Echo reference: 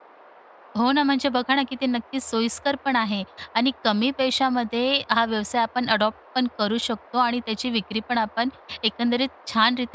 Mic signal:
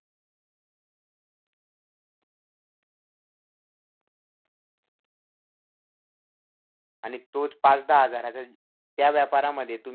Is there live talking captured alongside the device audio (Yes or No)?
Yes